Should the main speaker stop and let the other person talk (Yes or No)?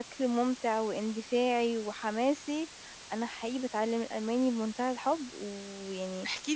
Yes